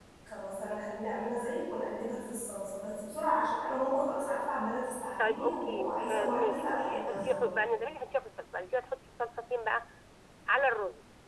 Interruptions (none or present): present